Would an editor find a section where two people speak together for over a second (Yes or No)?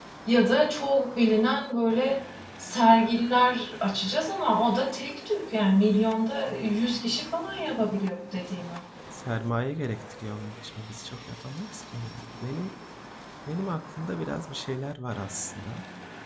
No